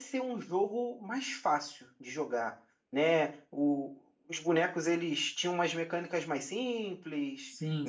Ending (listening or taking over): listening